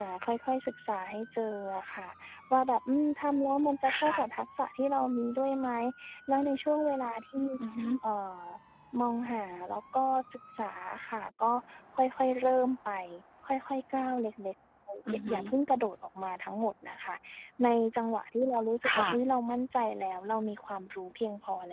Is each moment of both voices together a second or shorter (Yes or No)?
Yes